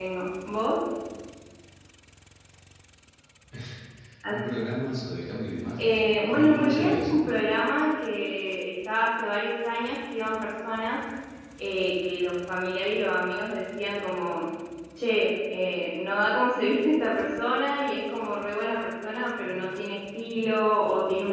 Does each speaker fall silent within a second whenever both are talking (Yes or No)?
No